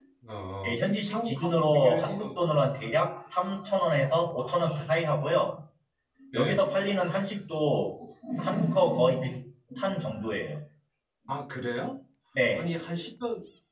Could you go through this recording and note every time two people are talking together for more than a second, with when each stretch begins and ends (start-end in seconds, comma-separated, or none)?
0.6-2.2